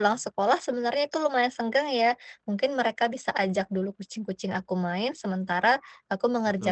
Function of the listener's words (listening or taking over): listening